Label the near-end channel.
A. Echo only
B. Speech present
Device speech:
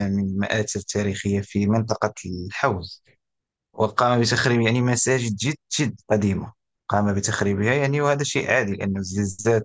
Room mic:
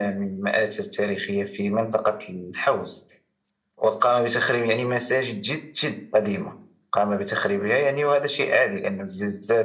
A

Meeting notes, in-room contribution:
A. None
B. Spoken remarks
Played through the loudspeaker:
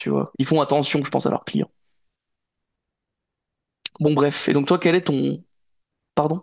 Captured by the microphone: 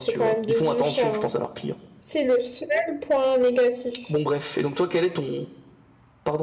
B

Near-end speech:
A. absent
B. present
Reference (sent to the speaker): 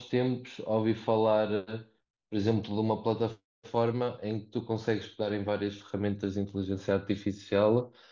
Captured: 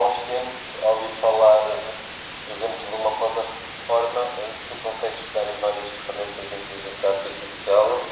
A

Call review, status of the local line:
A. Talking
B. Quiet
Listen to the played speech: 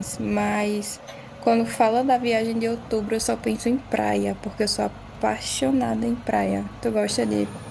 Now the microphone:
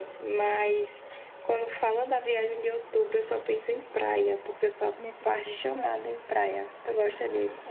A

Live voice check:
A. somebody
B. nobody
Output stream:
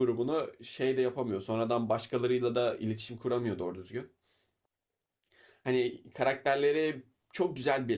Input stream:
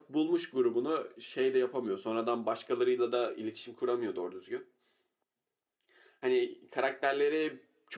B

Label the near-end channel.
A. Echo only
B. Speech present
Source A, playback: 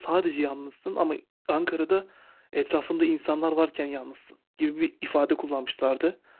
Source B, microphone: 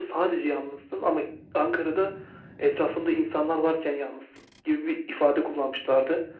A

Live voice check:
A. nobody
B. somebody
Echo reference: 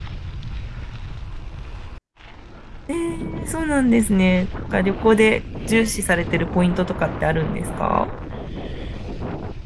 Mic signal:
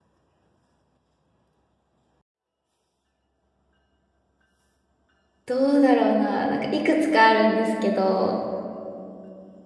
B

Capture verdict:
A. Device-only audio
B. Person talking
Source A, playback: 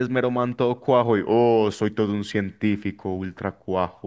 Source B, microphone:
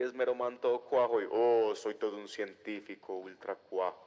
A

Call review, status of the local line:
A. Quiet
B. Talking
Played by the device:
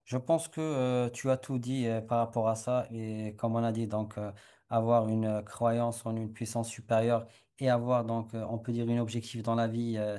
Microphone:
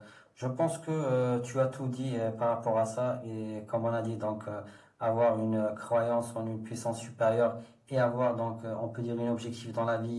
A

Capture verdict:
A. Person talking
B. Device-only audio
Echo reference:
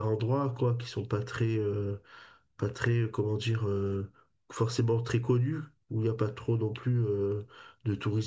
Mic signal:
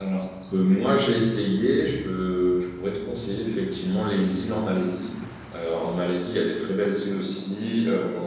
A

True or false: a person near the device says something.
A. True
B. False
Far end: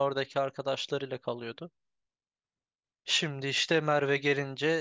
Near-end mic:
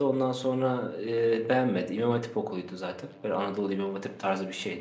A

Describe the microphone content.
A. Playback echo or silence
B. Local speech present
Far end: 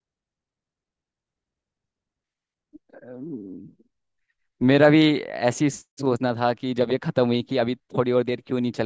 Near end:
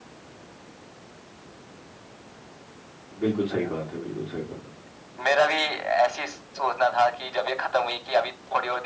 B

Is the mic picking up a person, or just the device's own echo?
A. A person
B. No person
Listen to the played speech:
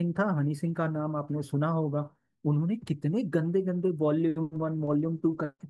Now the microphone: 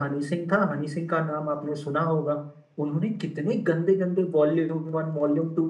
B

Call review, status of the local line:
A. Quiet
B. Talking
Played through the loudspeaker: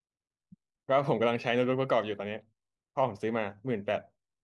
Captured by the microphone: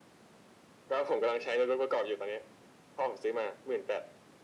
A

